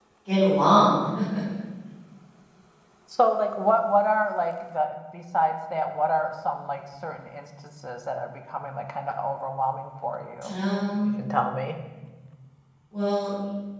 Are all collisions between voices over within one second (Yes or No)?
Yes